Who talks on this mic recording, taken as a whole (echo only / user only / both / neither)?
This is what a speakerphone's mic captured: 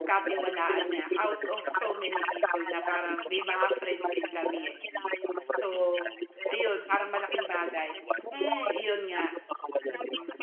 both